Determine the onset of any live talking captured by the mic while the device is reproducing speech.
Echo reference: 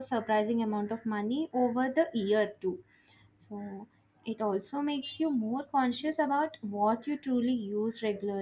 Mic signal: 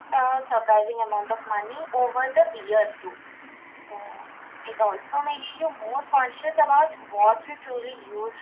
none

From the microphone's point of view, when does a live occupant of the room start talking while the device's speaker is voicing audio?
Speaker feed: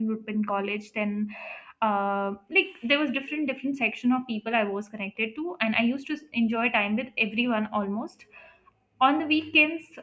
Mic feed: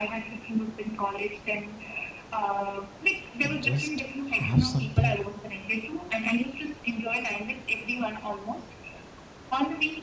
3.4 s

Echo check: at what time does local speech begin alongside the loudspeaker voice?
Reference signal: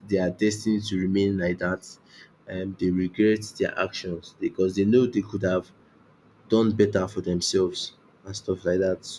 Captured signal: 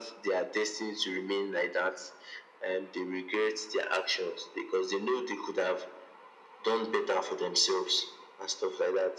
none

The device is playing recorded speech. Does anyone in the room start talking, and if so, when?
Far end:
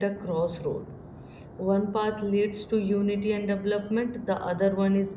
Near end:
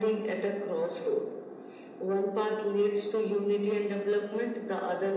none

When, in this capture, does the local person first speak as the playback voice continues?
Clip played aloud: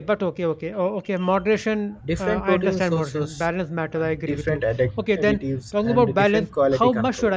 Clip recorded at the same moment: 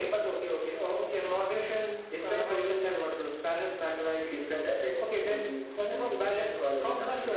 none

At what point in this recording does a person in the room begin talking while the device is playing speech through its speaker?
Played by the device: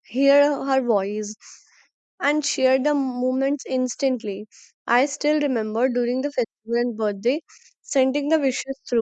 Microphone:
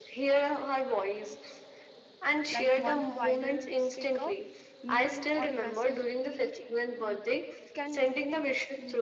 2.5 s

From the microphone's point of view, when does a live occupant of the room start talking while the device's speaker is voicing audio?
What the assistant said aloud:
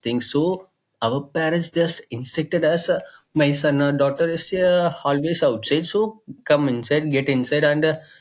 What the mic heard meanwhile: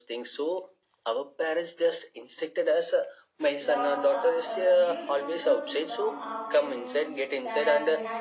3.6 s

